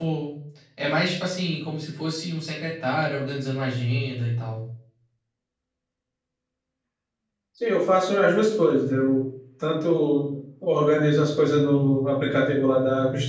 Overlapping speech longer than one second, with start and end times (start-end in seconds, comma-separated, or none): none